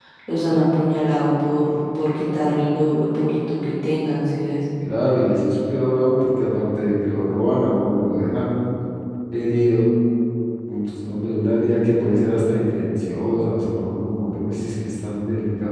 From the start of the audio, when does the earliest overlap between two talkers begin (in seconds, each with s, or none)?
none